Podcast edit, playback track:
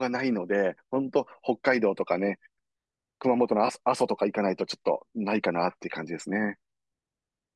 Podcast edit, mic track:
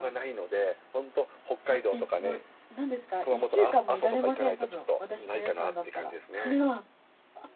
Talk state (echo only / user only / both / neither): both